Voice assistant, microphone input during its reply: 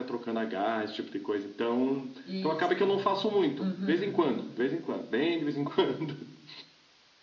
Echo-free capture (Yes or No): No